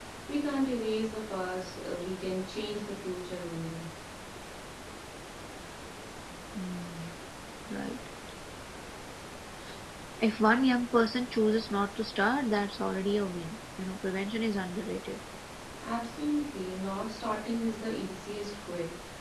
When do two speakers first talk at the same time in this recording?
none

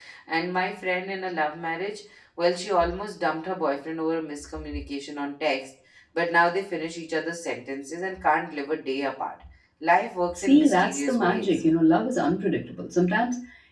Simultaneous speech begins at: 10 s

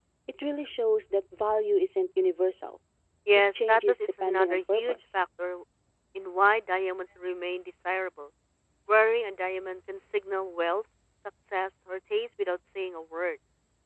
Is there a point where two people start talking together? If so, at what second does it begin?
4 s

